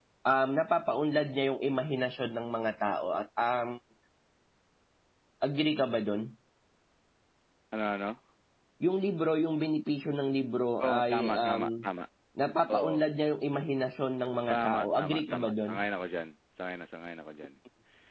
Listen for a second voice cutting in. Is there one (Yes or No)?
Yes